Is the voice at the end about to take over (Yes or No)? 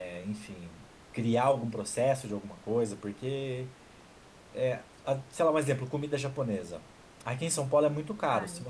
No